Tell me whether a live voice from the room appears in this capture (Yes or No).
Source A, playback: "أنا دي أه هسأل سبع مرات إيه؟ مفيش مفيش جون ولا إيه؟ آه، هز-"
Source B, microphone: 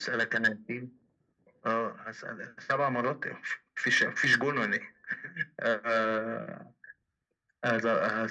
No